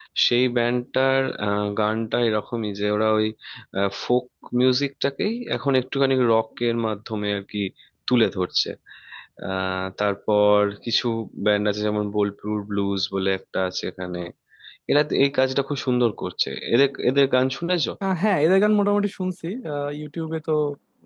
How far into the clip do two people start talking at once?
none

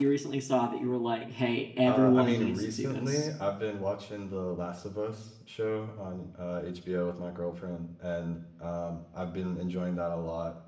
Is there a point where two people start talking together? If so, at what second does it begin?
1.8 s

